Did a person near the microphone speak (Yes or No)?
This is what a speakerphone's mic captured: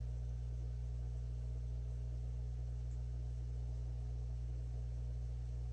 No